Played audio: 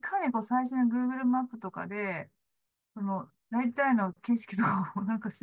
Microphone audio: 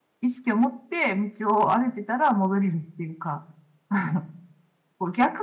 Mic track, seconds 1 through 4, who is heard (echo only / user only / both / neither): user only